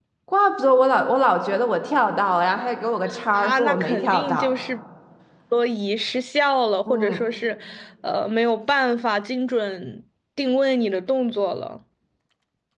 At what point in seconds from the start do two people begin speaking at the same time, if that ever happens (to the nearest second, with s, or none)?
3 s